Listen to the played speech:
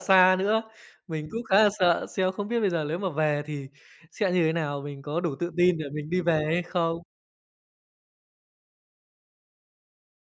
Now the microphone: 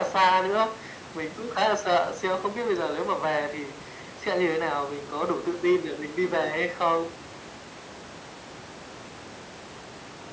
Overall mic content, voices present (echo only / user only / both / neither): echo only